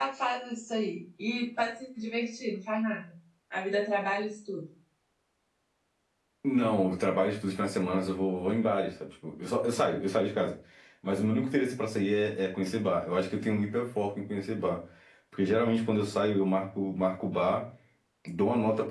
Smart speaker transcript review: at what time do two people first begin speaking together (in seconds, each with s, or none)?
none